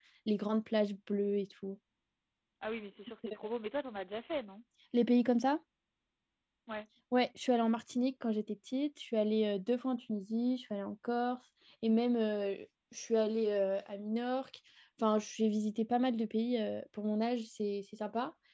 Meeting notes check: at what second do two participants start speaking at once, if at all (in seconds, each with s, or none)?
none